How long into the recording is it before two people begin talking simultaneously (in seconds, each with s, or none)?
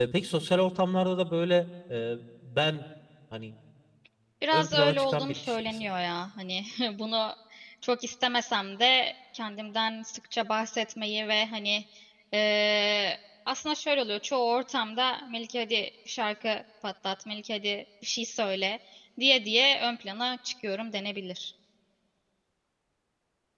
4.5 s